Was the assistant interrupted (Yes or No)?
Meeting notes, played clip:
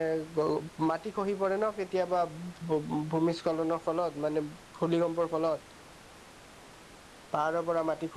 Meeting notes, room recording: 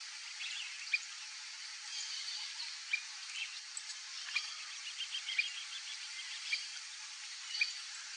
No